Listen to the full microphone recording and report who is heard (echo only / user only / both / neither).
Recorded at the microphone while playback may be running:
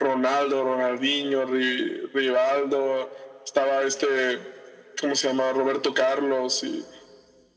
echo only